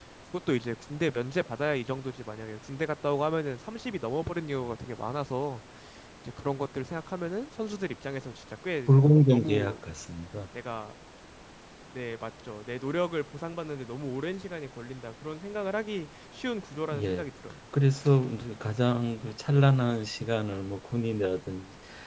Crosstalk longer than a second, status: none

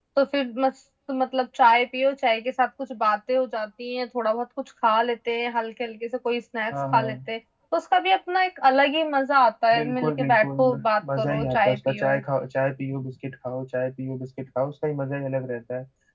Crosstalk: present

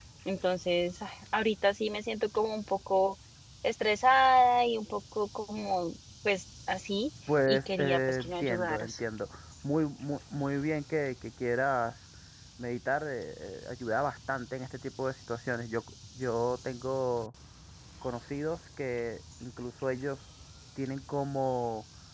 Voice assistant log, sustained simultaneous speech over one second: present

